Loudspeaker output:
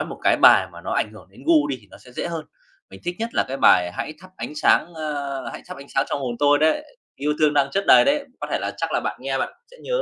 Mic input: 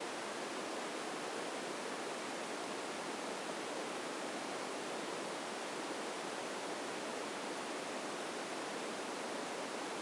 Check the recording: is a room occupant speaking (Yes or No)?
No